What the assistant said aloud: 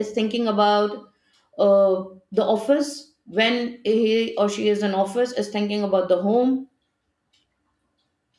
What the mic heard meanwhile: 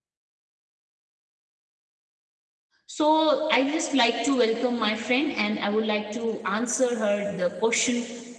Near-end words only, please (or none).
so i just like to welcome my friend and i would like to answer her the question